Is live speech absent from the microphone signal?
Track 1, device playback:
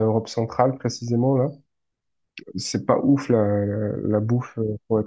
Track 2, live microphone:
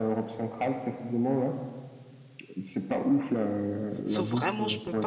No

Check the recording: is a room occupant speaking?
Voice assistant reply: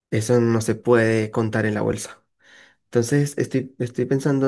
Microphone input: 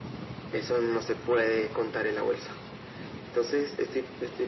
No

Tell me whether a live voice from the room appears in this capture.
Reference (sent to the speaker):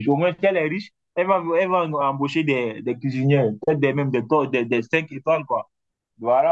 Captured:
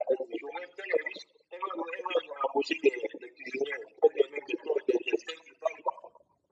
No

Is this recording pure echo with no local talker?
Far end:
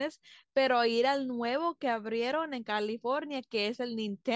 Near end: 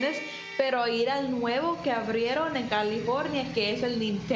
Yes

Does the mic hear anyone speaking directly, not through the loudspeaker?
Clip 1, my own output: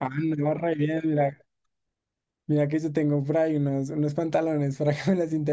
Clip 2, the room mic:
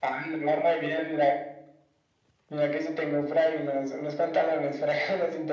No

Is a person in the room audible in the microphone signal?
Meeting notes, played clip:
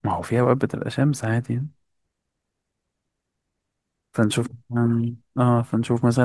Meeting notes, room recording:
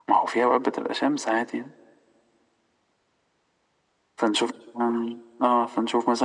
No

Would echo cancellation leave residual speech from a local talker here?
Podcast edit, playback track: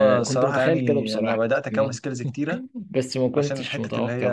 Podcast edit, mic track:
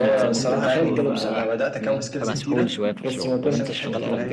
Yes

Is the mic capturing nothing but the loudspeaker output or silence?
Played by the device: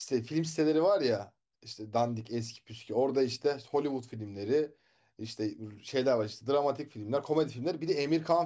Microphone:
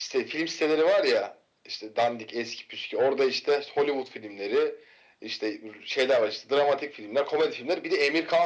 Yes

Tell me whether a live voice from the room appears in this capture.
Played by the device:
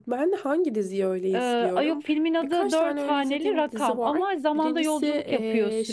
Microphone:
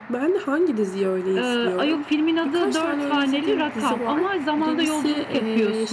No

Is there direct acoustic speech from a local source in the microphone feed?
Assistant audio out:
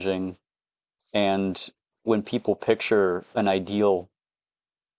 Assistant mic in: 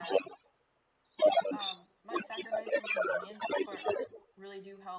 Yes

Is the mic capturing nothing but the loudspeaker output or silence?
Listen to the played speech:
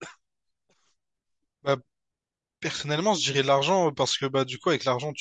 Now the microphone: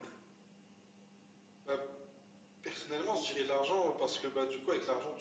Yes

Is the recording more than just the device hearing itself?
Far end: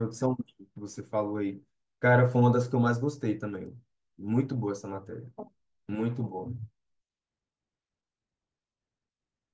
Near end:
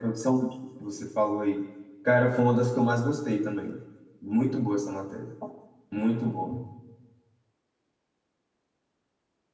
No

